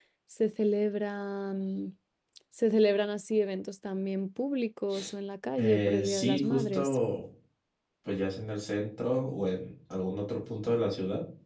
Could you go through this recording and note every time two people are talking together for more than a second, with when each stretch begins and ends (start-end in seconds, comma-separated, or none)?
5.6-7.0